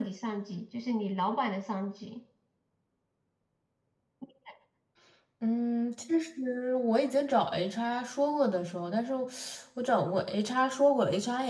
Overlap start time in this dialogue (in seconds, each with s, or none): none